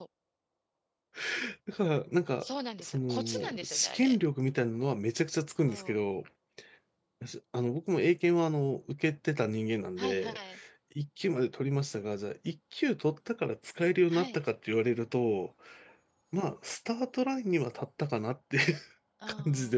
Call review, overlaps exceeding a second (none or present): present